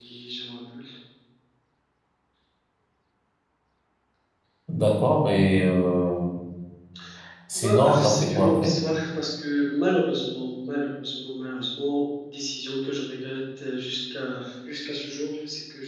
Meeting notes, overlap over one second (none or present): present